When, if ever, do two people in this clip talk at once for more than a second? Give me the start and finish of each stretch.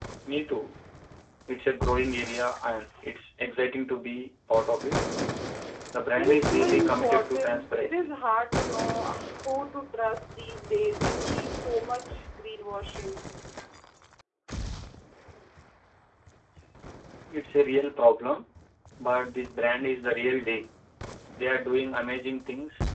6.2-8.1

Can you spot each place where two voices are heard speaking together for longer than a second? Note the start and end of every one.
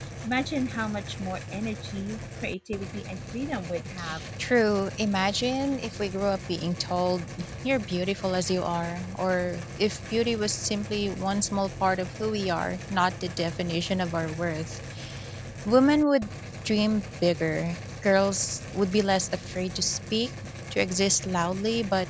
none

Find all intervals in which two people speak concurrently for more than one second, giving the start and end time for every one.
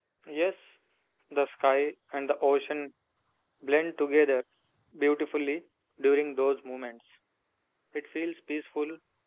none

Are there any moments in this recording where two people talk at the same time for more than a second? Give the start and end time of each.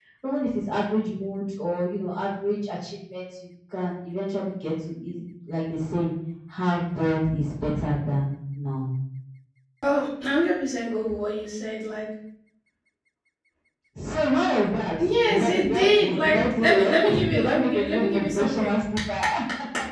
15.0-18.8

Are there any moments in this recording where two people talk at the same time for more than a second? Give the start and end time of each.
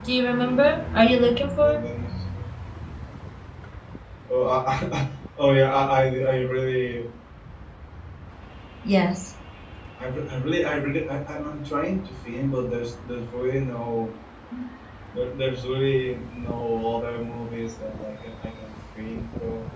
0.5-1.8

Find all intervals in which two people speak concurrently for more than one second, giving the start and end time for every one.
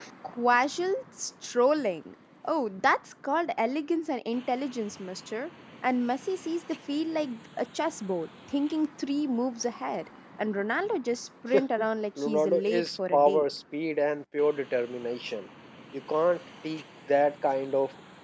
12.2-13.4

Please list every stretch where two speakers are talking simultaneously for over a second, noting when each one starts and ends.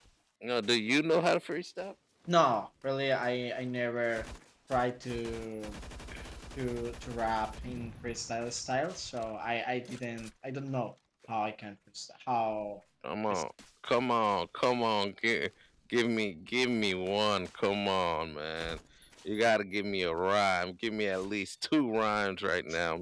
none

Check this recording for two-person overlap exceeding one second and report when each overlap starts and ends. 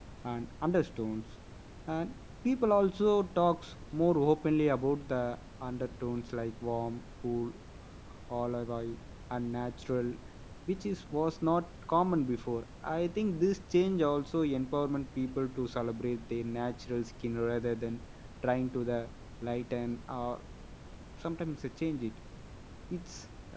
none

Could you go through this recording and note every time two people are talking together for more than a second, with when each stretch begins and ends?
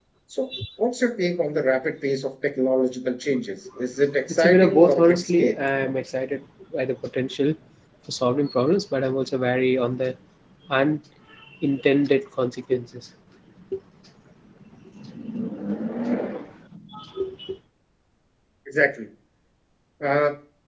4.3-5.5

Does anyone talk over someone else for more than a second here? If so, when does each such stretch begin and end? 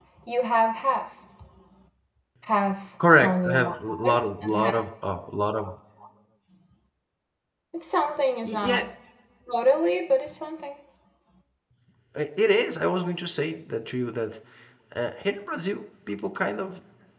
3.1-4.7

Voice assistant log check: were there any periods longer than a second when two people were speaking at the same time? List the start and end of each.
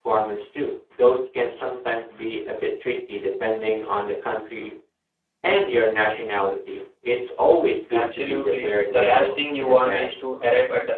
7.9-10.1

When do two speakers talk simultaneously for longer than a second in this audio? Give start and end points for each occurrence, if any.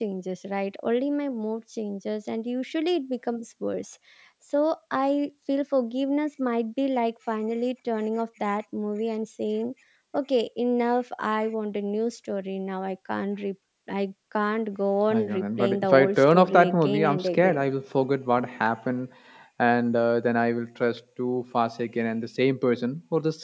15.1-17.6

